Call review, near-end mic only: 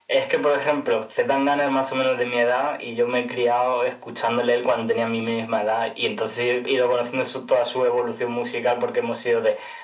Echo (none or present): present